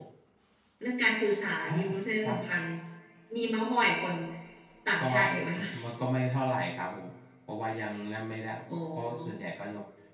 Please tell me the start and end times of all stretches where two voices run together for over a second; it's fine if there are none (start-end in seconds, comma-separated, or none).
none